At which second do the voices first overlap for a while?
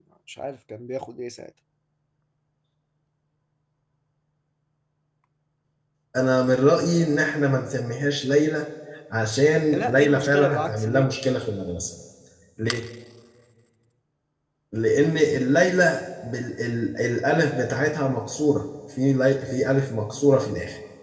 10 s

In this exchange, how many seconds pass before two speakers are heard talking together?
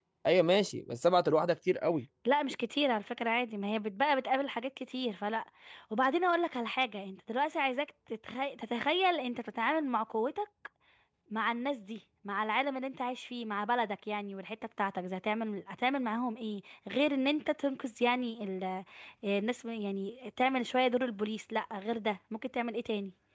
none

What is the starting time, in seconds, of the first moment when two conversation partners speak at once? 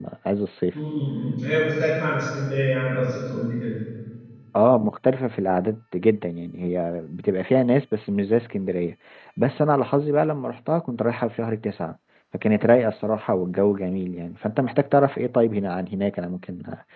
none

